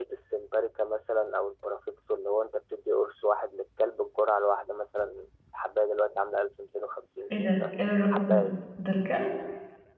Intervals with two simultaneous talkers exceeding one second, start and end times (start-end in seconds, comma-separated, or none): 7.3-8.5